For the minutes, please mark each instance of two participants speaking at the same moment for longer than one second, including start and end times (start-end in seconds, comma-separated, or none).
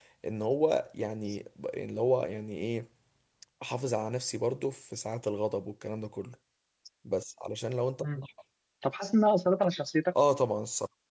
none